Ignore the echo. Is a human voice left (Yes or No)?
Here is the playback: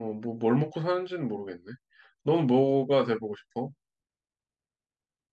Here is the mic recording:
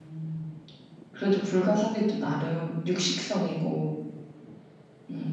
Yes